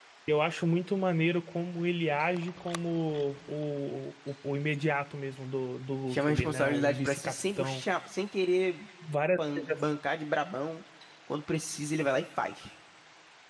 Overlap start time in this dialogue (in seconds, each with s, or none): 6.1 s